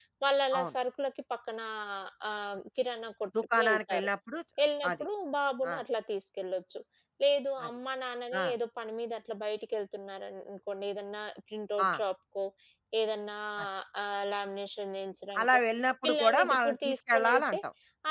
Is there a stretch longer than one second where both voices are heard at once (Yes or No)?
Yes